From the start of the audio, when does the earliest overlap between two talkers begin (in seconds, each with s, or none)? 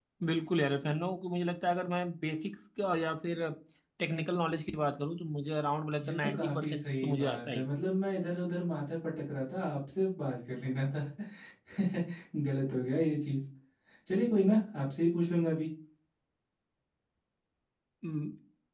6.0 s